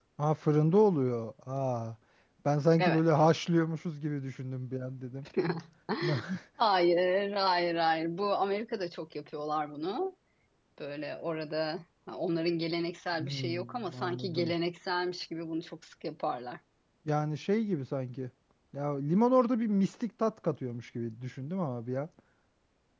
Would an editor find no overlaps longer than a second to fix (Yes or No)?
No